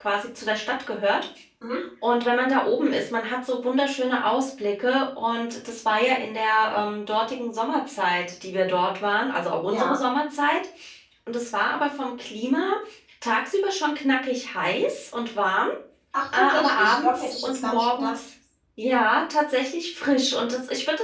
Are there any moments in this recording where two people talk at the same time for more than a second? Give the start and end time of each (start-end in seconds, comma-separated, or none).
16.3-18.1